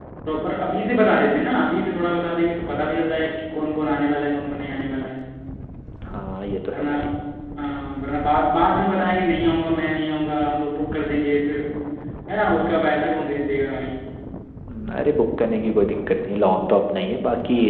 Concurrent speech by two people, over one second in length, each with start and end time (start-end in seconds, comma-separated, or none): none